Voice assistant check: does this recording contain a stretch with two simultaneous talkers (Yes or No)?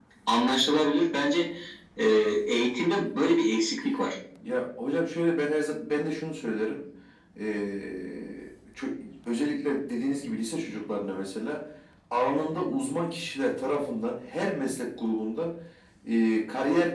No